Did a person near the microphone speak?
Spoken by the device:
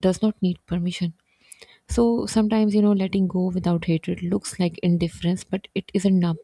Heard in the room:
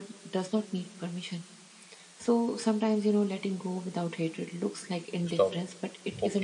Yes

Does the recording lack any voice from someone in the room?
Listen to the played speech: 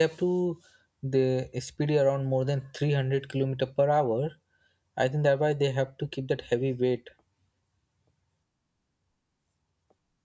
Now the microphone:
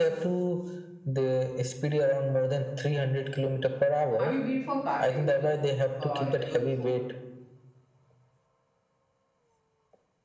No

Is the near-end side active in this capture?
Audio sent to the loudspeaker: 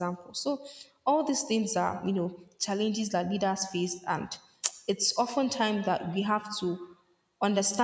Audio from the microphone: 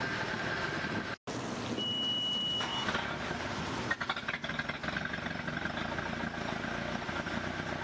No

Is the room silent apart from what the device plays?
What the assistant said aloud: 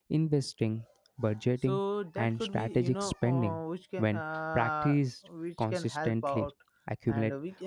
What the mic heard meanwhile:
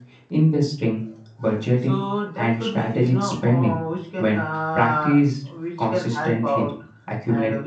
Yes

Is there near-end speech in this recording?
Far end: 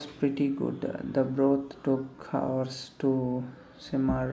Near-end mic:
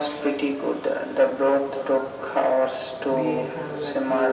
Yes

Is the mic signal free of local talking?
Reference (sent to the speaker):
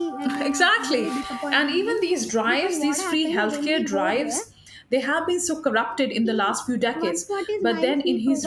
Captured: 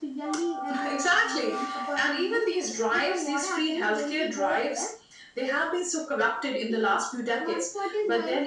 Yes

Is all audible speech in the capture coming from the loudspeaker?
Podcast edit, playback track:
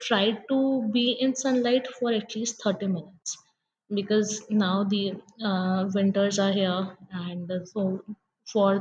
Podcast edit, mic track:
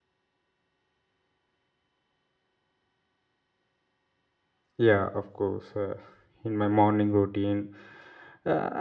No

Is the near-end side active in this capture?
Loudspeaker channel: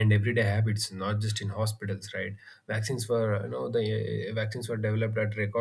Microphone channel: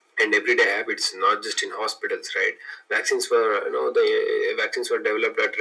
No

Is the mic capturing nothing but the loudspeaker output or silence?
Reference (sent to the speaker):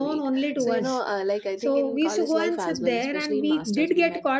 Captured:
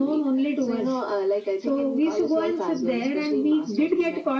Yes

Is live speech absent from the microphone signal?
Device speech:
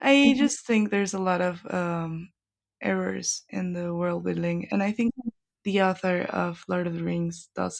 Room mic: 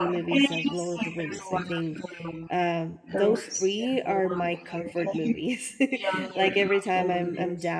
No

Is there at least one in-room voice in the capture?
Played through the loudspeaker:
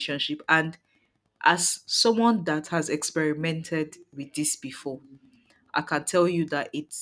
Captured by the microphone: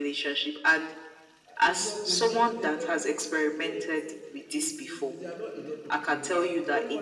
Yes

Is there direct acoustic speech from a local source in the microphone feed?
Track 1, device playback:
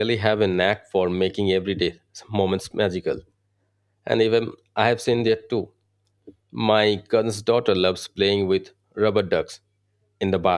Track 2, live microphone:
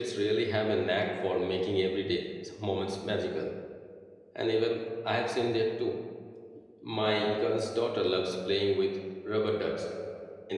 No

